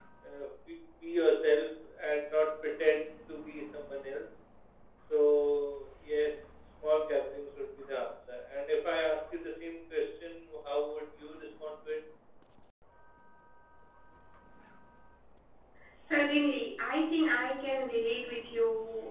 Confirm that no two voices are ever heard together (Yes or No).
Yes